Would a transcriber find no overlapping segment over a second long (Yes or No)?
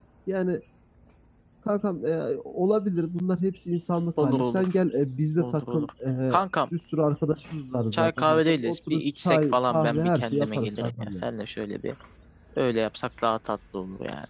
No